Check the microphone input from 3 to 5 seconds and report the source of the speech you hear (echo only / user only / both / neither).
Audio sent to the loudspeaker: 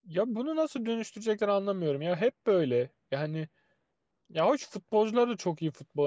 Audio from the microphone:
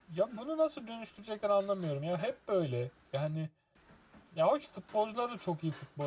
echo only